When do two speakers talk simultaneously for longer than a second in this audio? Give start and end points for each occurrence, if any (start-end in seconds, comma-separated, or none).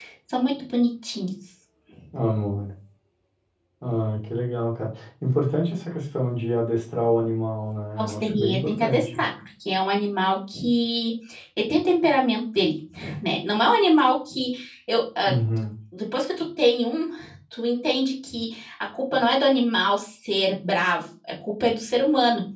8.0-9.2